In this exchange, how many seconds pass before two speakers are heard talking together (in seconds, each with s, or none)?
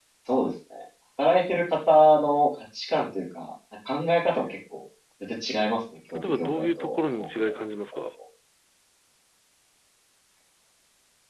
6.2 s